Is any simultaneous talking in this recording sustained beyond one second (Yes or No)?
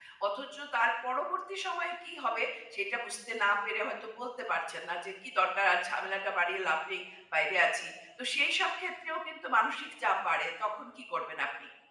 No